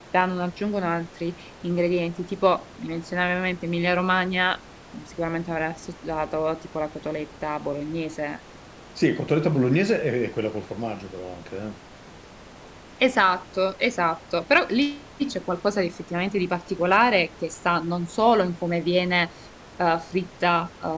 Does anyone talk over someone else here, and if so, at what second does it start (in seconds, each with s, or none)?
none